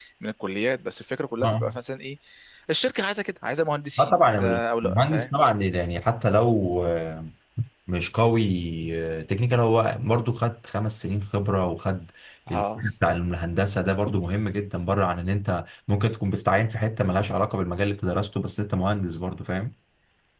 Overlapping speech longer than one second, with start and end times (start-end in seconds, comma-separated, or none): 4.0-5.3